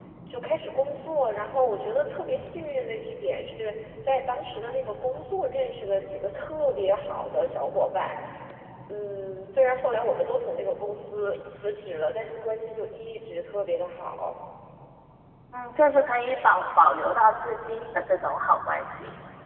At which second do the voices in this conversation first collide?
none

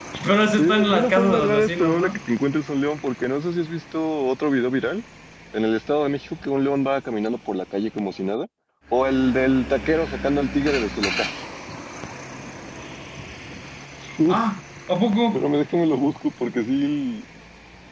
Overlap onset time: 0.6 s

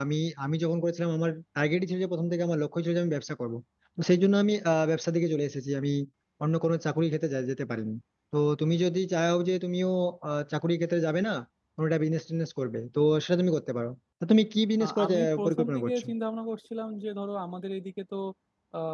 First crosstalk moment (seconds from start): 14.8 s

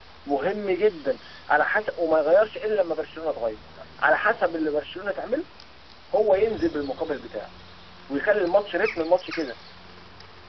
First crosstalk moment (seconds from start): none

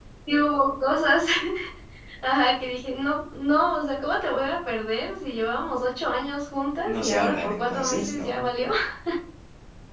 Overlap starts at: 6.8 s

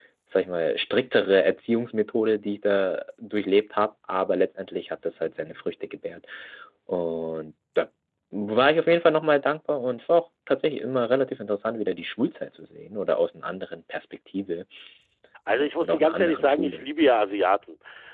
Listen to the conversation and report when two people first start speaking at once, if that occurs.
15.5 s

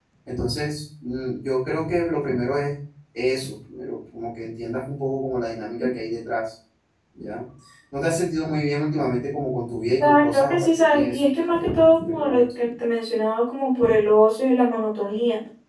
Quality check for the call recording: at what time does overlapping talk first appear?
10.0 s

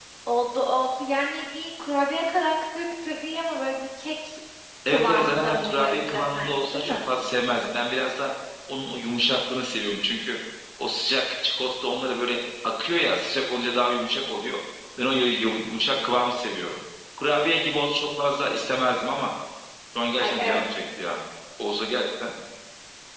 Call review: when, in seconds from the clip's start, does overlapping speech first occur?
4.9 s

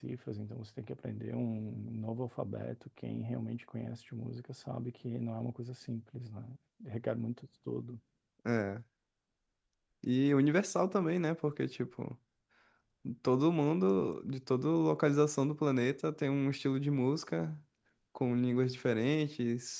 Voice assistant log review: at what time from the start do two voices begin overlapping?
none

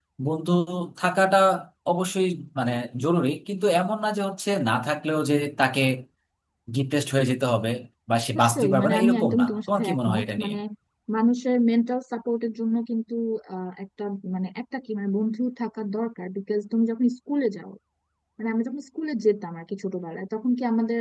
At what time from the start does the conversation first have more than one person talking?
8.4 s

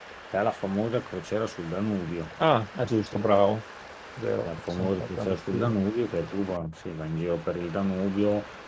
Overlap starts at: 4.4 s

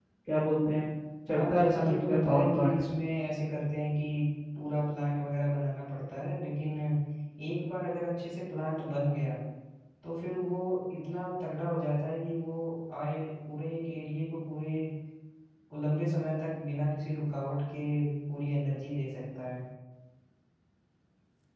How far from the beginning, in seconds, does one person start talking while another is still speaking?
1.3 s

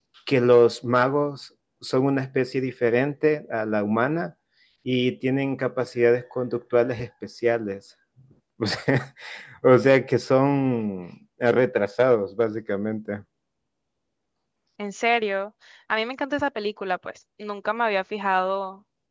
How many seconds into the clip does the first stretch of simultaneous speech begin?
none

